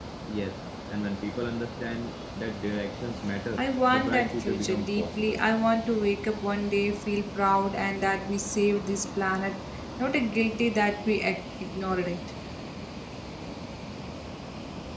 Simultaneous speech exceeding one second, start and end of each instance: 3.6-5.4

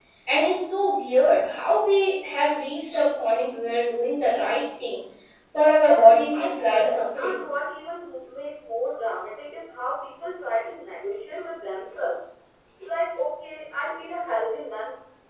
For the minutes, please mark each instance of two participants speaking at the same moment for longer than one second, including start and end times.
5.8-7.4

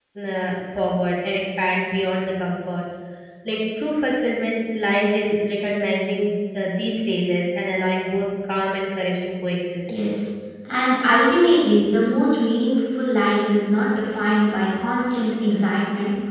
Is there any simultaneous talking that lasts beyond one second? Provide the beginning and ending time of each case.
none

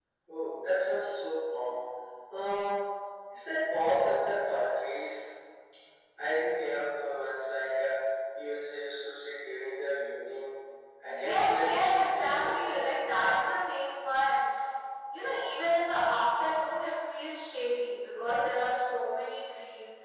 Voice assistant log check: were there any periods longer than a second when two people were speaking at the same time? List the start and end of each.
11.1-13.1

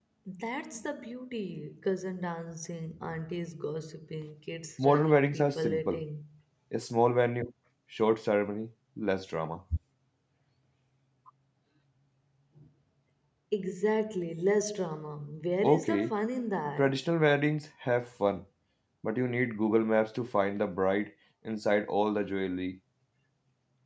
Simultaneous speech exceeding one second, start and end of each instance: 4.8-6.0

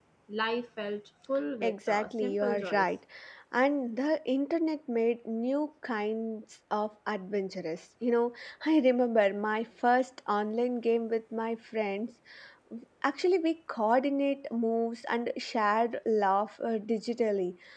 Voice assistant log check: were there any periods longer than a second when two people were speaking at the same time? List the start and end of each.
1.6-2.9

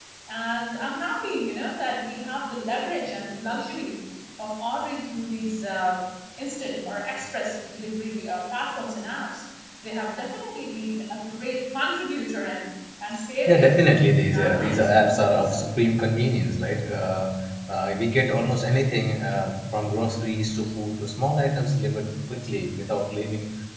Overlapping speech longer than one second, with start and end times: 14.2-15.7

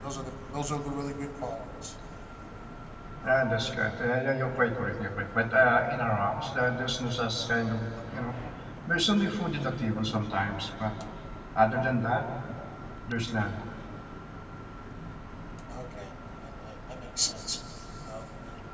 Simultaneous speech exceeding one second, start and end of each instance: none

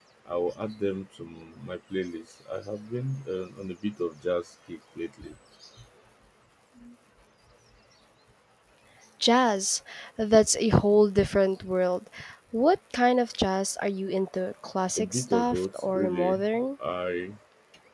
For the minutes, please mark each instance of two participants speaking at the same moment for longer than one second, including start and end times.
15.0-16.4

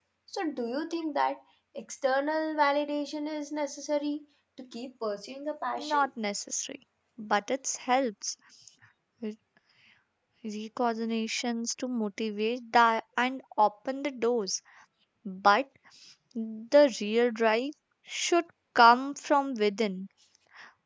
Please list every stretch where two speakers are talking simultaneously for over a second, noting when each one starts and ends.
none

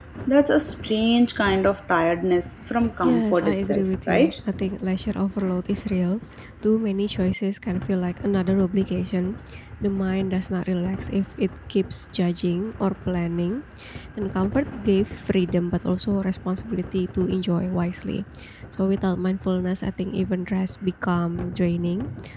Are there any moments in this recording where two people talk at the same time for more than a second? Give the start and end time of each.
3.0-4.3

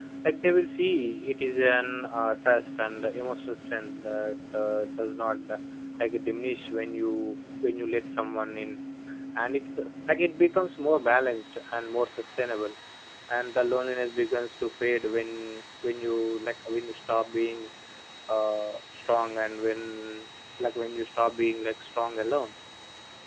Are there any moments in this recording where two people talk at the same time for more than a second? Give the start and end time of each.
none

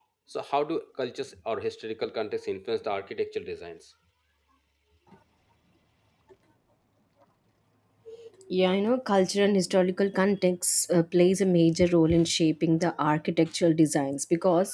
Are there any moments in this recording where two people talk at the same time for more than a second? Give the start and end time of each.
none

